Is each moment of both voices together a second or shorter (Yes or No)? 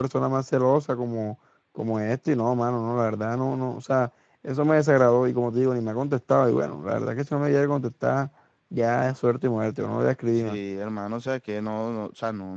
Yes